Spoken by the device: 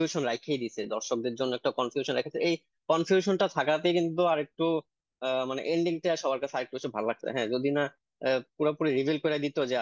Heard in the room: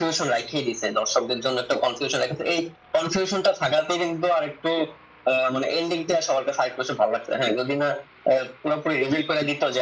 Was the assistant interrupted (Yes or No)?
No